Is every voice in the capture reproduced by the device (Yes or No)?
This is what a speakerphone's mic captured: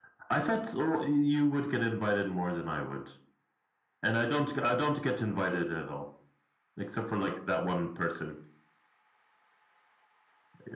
Yes